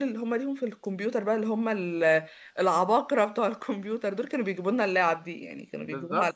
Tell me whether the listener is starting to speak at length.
Yes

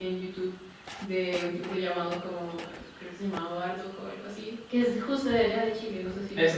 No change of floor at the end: No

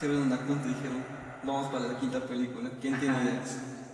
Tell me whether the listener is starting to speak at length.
Yes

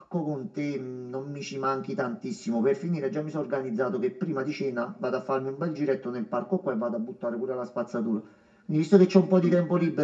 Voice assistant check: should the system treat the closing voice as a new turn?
No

